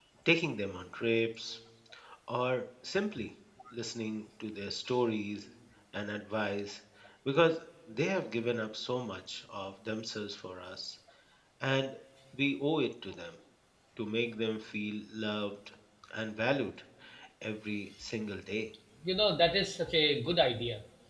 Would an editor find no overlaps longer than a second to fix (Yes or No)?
Yes